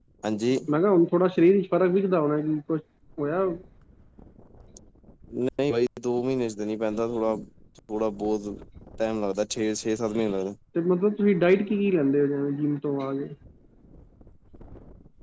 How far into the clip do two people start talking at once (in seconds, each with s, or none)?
none